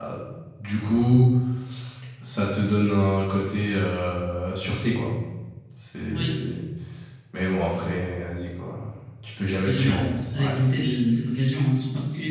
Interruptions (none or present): present